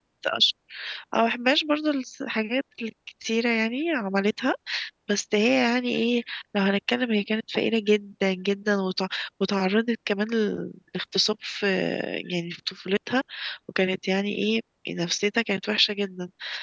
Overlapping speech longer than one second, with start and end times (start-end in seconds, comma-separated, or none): none